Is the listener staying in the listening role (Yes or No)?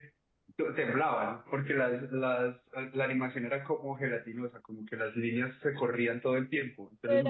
No